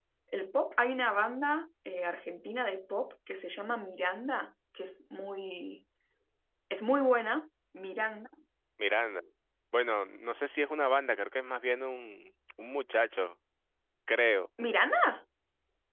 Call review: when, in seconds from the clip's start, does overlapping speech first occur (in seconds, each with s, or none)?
none